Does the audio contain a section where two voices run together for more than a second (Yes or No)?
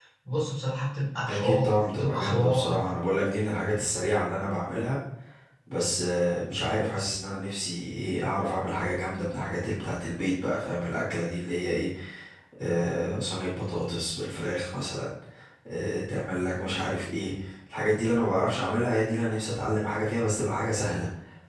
Yes